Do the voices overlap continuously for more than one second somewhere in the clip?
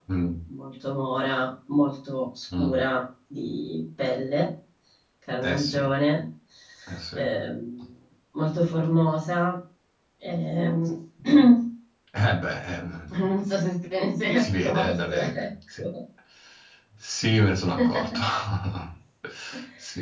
Yes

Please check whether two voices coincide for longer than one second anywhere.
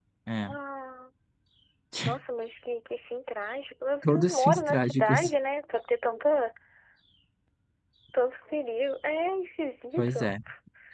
Yes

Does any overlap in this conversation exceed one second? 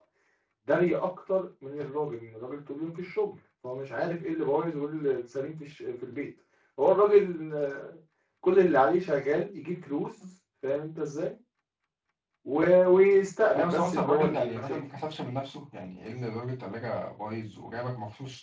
Yes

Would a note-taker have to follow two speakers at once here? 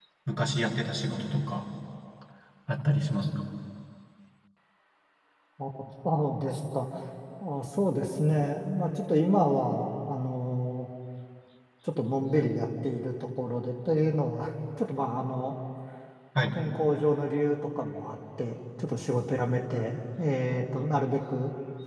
No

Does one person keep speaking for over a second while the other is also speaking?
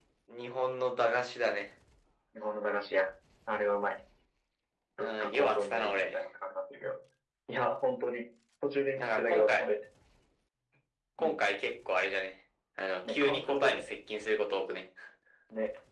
Yes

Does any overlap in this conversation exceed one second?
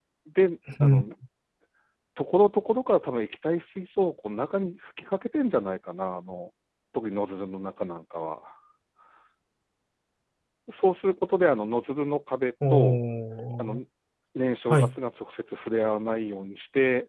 No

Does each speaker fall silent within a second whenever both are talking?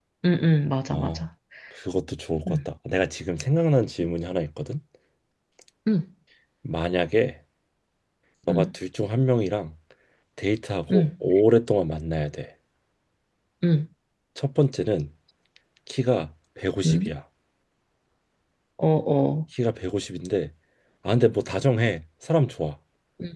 Yes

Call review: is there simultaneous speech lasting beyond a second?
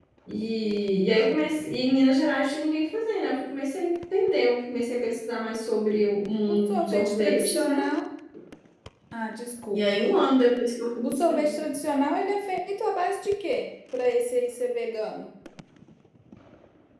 Yes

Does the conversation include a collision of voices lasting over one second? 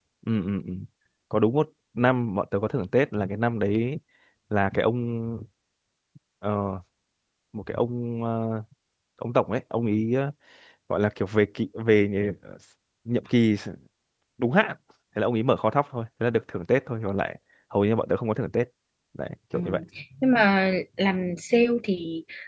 No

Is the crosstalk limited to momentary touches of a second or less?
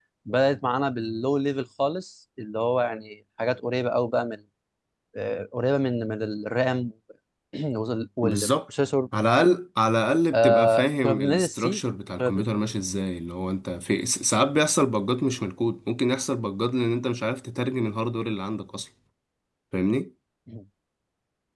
No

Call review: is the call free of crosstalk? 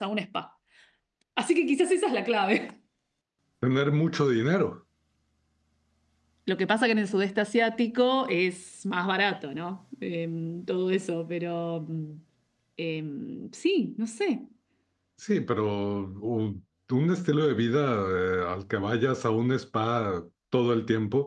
Yes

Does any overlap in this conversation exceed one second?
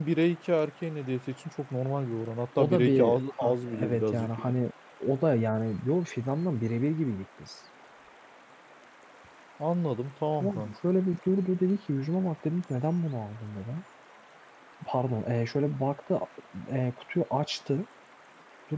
Yes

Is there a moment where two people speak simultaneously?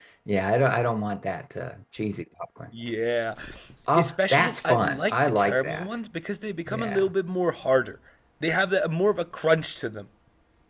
Yes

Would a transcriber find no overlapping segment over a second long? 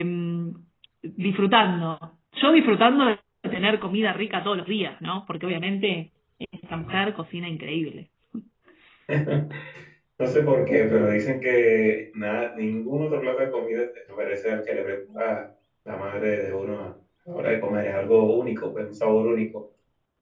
Yes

